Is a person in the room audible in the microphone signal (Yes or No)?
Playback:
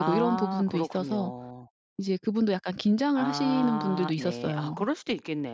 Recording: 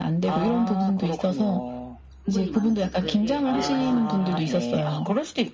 Yes